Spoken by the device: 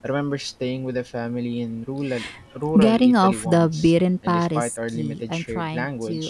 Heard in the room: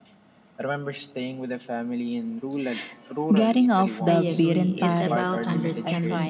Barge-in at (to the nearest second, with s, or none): 4 s